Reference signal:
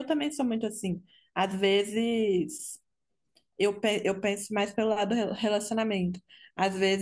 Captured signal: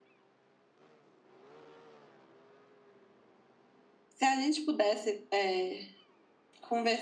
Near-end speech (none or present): present